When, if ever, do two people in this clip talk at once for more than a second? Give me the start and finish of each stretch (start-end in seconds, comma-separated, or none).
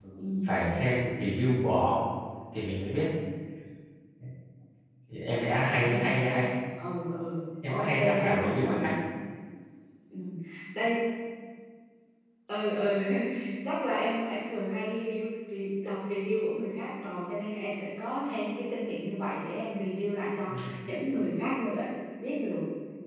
7.7-8.9